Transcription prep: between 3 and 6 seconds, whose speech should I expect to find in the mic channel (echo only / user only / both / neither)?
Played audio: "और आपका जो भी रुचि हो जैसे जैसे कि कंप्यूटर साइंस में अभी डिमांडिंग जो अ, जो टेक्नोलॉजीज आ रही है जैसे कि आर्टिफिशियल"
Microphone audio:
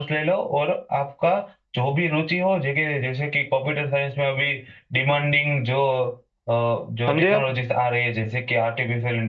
echo only